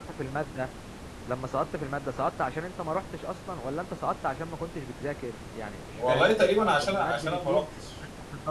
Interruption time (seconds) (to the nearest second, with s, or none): 6 s